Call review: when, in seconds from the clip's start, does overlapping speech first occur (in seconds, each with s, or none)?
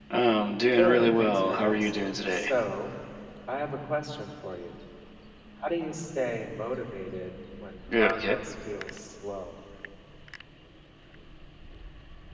0.7 s